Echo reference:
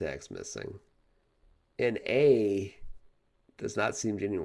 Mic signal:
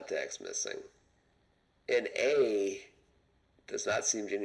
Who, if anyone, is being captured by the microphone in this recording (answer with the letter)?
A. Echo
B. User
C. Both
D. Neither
A